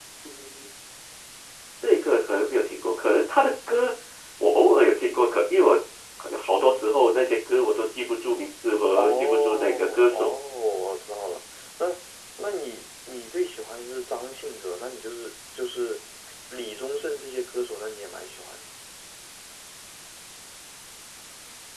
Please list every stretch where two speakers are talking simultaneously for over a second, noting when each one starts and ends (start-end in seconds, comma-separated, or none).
9.0-10.3